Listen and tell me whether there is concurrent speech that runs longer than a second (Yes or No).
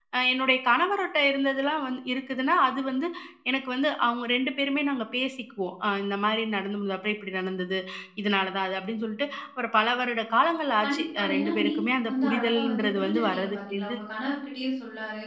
Yes